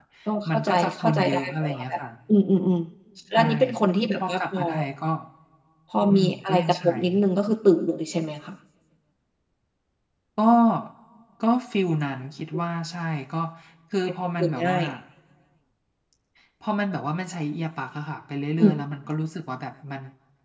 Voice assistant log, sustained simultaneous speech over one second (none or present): present